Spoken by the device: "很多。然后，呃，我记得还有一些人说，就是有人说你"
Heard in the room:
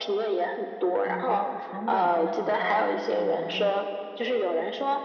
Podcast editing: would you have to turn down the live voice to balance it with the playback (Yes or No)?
No